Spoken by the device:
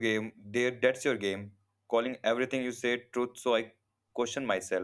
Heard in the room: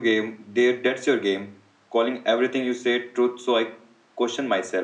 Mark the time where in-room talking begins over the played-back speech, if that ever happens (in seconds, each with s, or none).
none